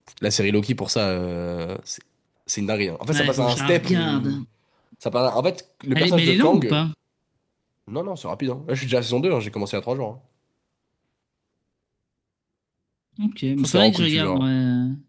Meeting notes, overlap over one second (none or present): present